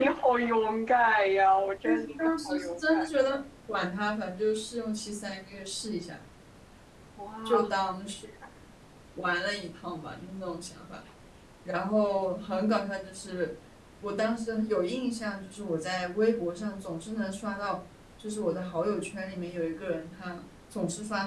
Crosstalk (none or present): present